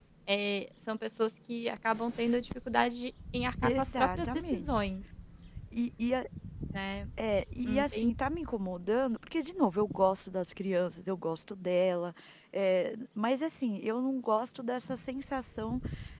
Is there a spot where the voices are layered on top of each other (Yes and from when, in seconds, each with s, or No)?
Yes, from 3.6 s